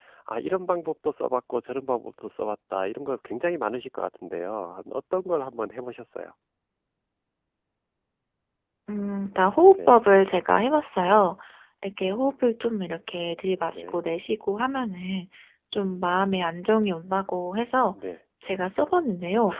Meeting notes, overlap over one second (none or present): none